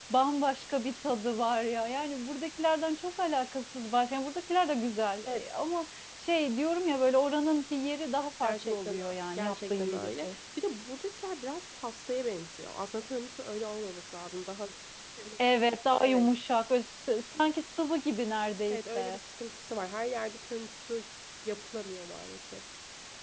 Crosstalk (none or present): present